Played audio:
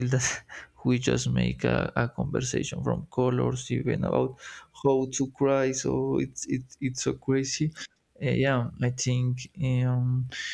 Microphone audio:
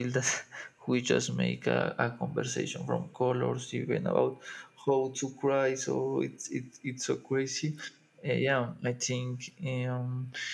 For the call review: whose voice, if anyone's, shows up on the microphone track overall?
echo only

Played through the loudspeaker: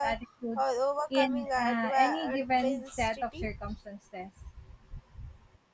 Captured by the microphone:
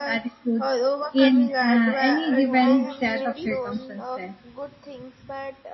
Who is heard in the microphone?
both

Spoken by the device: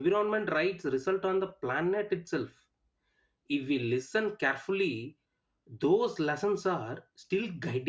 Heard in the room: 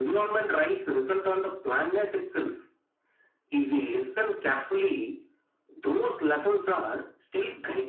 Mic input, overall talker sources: echo only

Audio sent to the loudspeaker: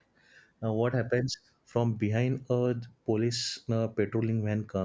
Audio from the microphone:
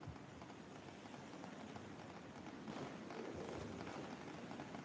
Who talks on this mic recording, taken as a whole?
neither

